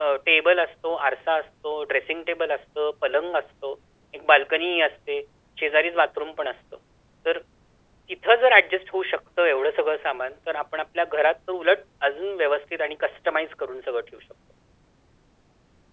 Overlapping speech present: No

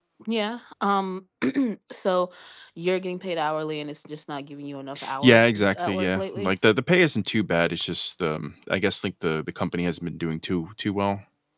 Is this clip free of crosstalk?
No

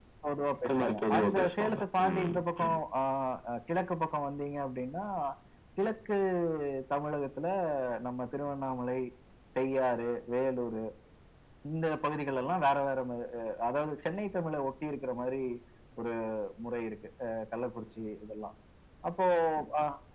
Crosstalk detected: Yes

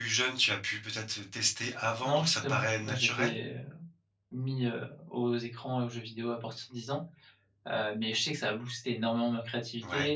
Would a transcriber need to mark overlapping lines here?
Yes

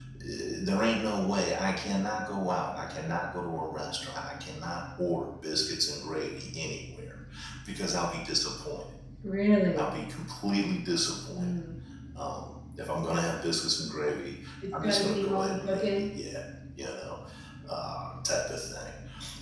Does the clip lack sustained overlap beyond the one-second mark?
No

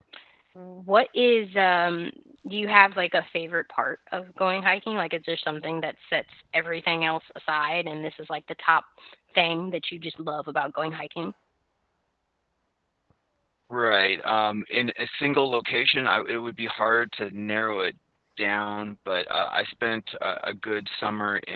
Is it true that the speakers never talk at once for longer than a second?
Yes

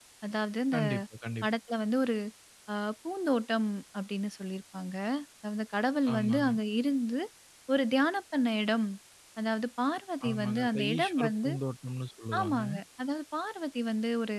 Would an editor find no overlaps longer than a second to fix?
No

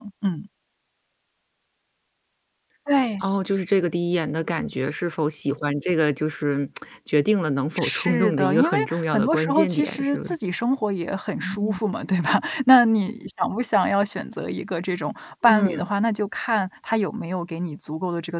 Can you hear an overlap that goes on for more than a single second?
Yes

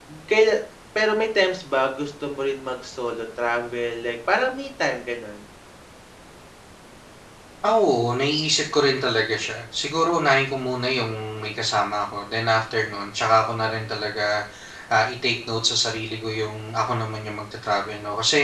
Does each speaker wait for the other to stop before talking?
Yes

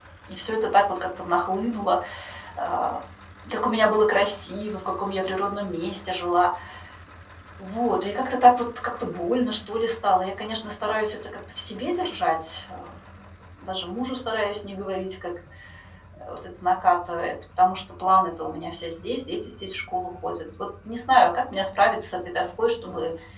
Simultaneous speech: No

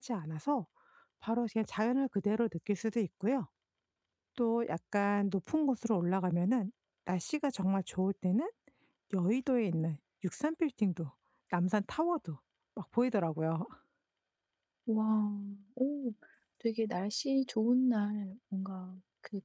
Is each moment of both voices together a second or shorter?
Yes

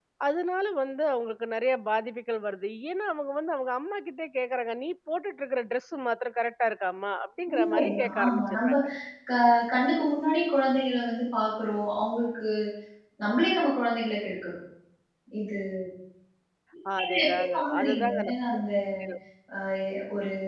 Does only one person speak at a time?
No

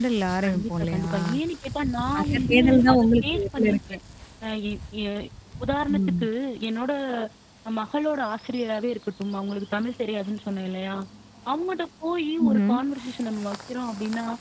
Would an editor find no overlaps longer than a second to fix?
No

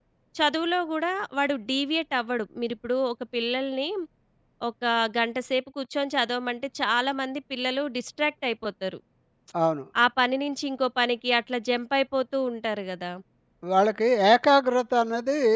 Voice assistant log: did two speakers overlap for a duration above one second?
No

